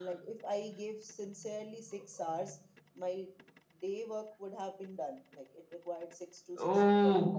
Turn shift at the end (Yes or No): Yes